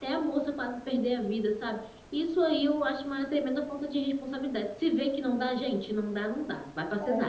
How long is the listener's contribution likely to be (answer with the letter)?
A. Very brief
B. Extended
B